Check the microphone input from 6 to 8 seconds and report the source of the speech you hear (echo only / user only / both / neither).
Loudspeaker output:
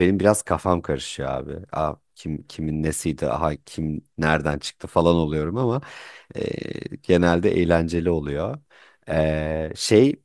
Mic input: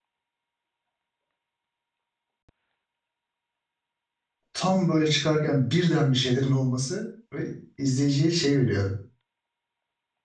user only